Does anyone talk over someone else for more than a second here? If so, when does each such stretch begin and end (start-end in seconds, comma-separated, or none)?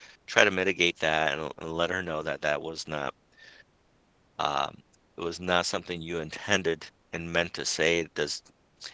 none